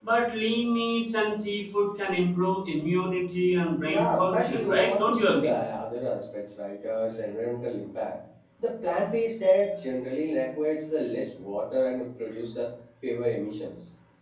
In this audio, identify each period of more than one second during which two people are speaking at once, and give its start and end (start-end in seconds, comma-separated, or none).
3.8-5.5